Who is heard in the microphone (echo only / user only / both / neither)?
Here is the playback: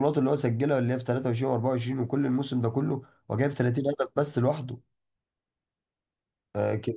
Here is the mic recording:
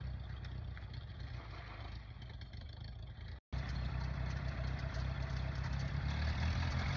neither